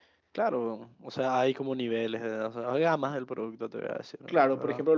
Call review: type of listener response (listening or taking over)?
taking over